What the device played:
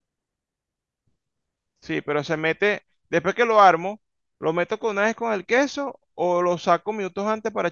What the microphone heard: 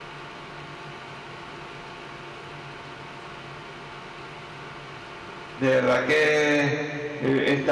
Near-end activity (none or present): present